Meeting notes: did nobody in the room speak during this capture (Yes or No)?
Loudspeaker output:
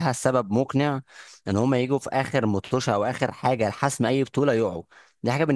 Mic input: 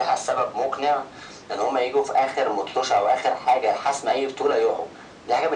Yes